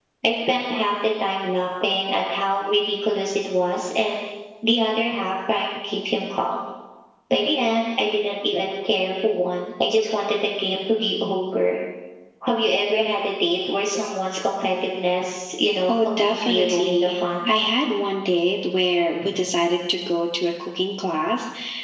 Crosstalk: present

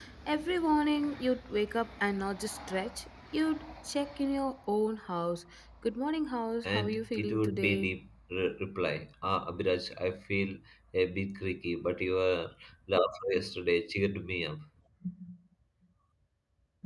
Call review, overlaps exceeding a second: present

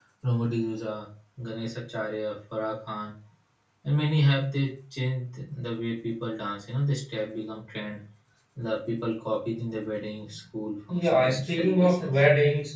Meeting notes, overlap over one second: present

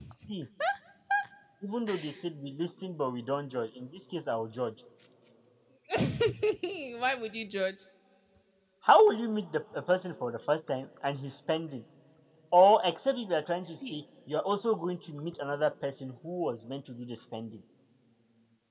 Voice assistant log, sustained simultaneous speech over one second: none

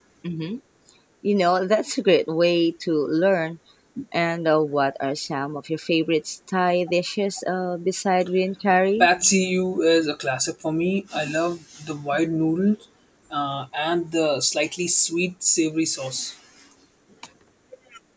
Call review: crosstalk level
none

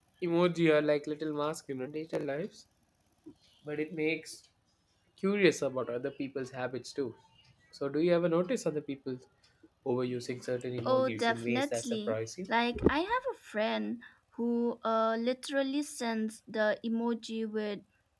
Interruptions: present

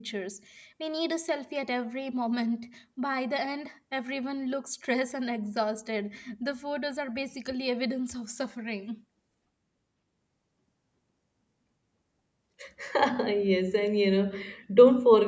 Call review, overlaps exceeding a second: none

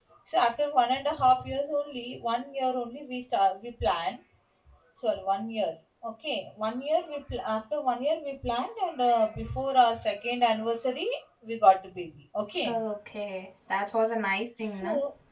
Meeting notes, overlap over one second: none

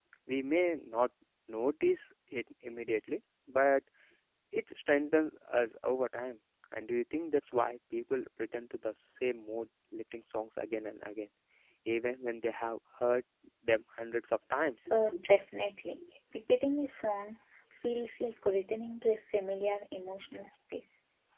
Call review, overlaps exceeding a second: none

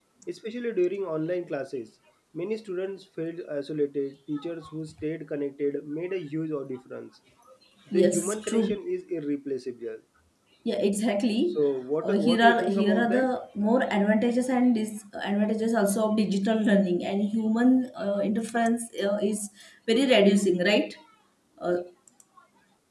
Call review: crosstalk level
present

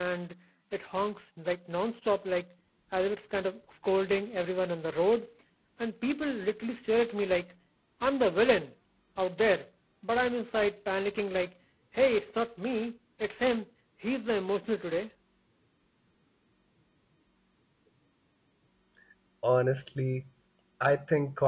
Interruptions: none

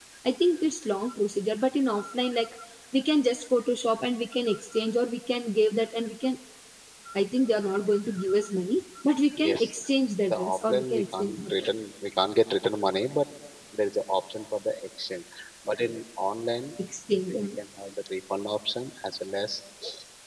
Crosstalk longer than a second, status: present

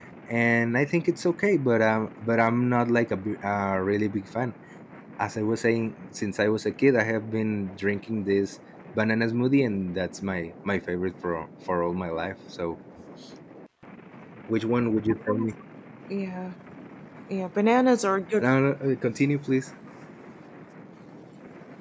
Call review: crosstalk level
none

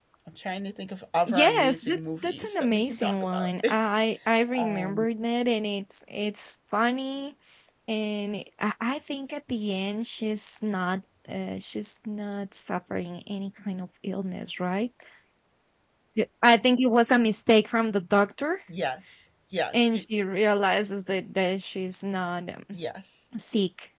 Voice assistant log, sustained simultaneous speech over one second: present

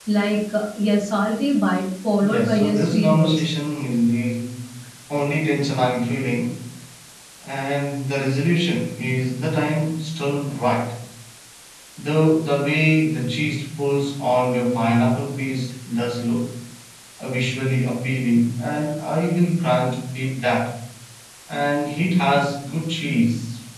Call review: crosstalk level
present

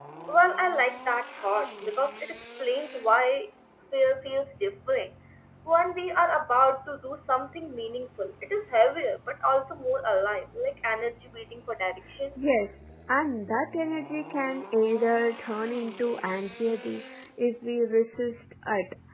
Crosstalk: none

